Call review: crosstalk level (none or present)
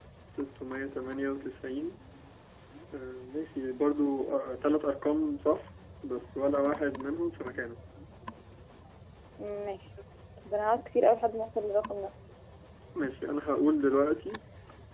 none